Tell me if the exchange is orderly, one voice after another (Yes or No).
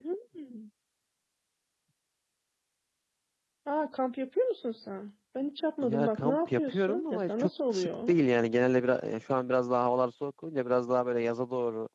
No